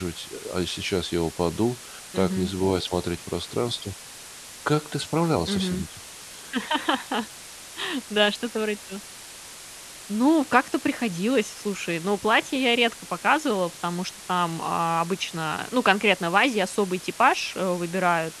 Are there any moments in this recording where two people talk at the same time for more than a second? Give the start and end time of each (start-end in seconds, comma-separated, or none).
none